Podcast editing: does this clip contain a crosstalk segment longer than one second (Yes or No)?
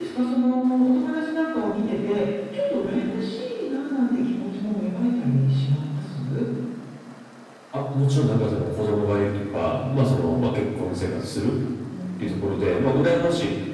No